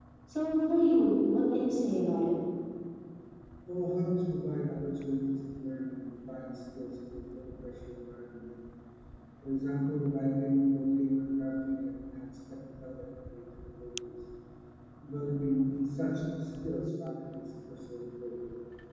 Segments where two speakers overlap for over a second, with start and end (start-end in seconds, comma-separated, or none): none